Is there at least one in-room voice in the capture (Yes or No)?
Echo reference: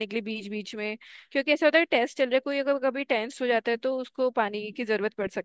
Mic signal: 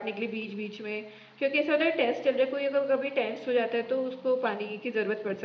No